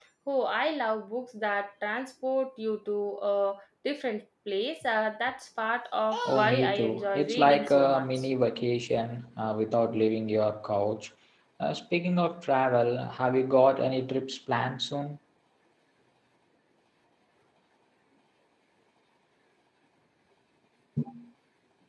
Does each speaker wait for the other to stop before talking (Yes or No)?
No